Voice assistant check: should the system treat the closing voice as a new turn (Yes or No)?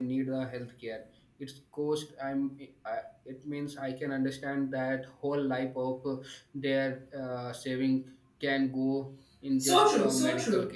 Yes